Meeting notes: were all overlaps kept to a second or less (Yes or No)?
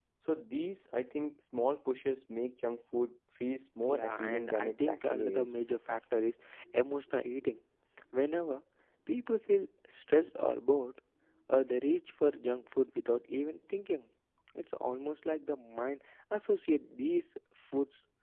No